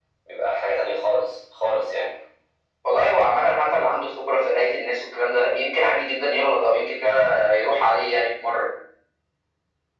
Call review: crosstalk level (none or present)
none